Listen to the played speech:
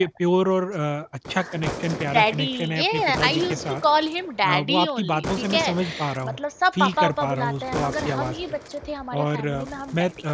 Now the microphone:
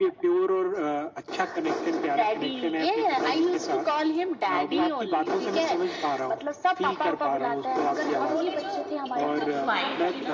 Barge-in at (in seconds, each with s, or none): 8.2 s